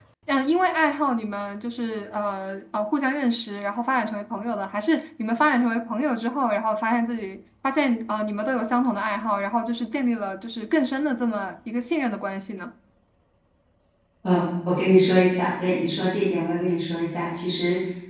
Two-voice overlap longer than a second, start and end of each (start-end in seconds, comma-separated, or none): none